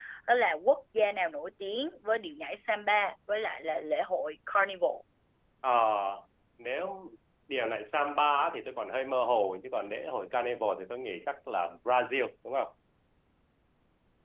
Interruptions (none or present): none